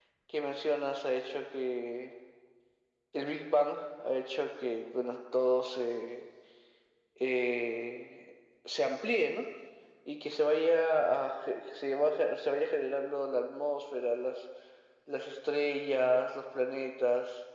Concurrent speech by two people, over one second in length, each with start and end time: none

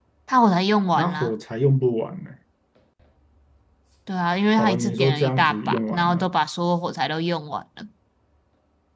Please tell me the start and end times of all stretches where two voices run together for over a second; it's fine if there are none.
4.6-6.3

